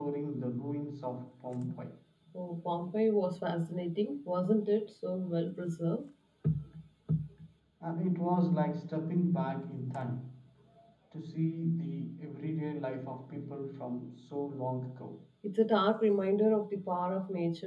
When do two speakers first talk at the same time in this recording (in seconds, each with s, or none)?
none